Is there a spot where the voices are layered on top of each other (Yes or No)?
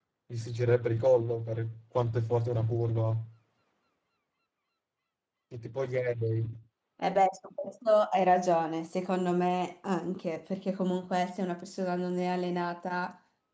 No